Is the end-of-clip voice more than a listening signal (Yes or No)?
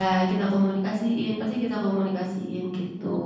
Yes